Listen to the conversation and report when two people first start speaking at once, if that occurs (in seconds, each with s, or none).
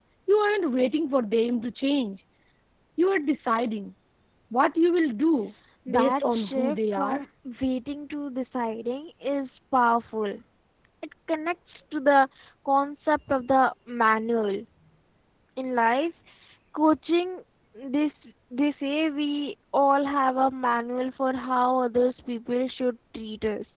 5.9 s